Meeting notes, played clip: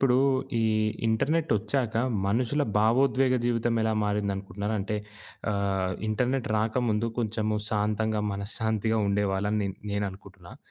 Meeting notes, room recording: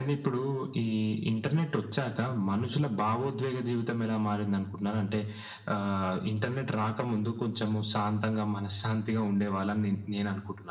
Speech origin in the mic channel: echo only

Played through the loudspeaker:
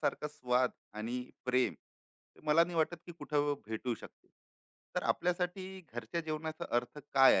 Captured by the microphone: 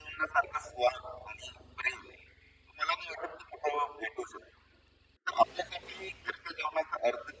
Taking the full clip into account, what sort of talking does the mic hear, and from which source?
echo only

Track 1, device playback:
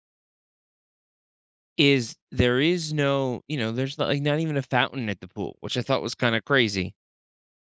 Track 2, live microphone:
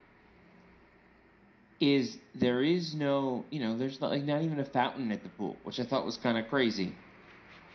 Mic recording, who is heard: echo only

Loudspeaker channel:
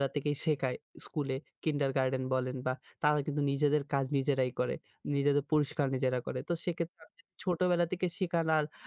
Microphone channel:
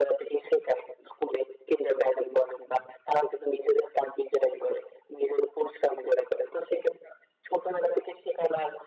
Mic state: echo only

